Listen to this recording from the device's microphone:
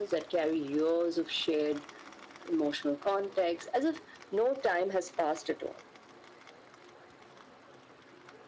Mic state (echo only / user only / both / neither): echo only